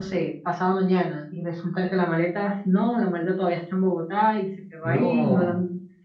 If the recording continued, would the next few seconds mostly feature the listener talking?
No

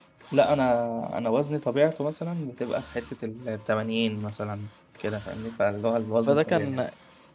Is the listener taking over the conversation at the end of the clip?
Yes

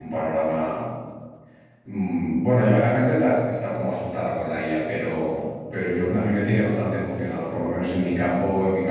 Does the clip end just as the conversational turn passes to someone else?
No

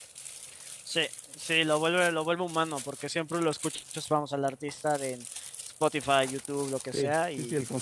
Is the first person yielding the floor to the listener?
Yes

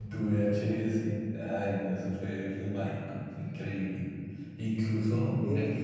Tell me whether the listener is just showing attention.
Yes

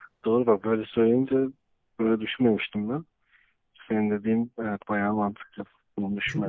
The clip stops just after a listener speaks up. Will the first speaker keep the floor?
No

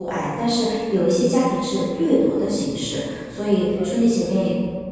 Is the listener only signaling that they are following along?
Yes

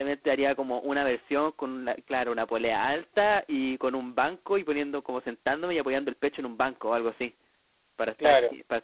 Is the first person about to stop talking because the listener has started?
No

